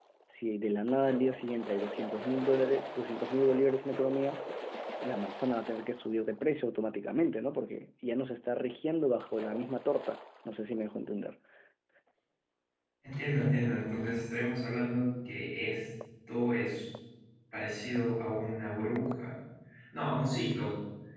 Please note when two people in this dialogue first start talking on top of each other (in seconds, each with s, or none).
none